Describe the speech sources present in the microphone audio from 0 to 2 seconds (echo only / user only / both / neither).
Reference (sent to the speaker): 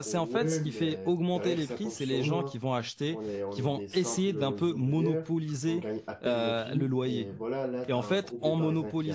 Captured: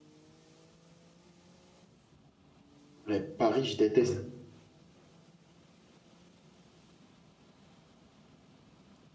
neither